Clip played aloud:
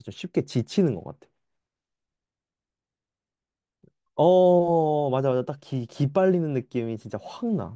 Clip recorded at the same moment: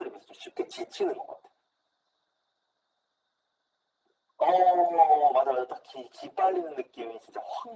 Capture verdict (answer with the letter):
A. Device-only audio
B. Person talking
A